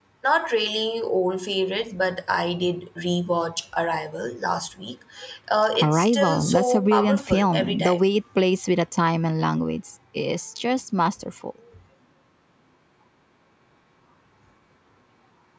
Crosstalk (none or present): present